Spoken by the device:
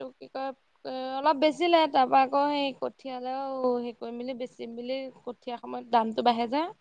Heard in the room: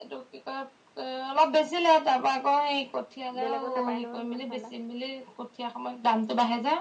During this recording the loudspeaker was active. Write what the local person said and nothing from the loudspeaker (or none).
বেলেগত নাপায় নহয় সিমান ঠাণ্ডা